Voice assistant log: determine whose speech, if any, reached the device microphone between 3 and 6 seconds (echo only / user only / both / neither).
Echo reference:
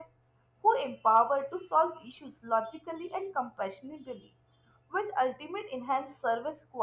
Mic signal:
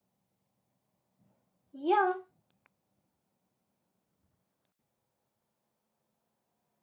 neither